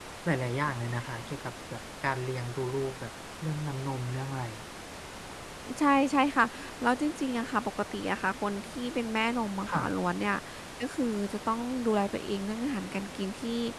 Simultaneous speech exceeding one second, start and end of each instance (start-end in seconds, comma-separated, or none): none